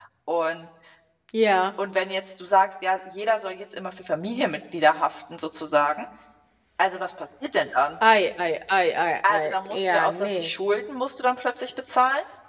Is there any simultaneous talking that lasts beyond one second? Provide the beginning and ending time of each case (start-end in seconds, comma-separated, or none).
9.3-10.5